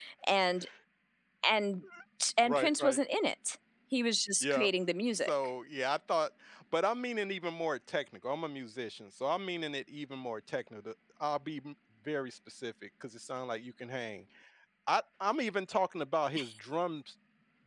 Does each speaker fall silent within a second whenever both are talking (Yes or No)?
Yes